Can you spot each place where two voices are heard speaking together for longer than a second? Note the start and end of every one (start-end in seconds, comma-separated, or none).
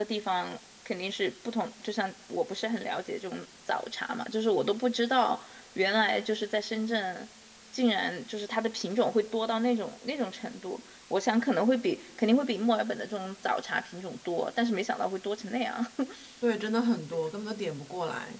none